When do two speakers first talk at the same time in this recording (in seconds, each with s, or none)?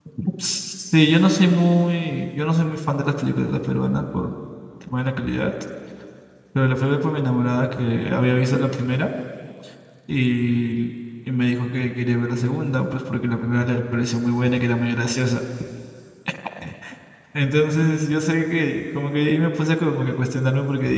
none